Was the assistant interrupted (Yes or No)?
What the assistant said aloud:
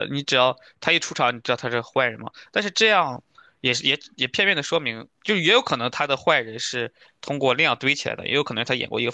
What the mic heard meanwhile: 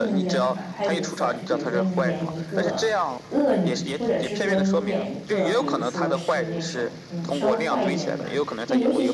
Yes